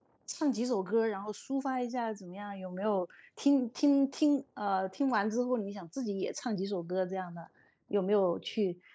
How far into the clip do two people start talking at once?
none

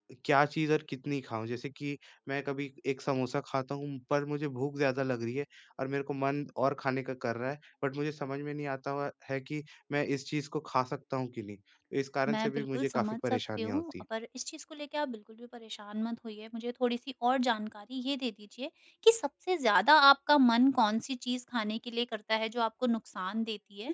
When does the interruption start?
12.3 s

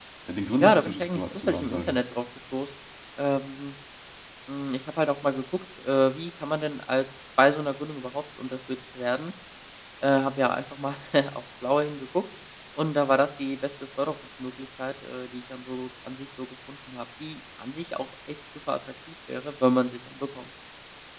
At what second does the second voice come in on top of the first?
0.6 s

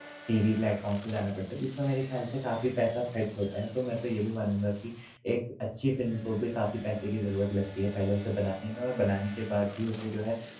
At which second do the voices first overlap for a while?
none

